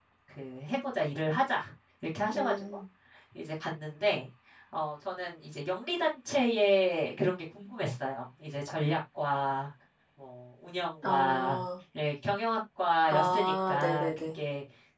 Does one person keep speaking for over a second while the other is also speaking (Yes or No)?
Yes